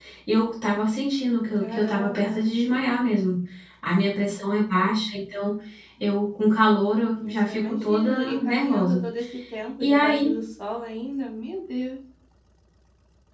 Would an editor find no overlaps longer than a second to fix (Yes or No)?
No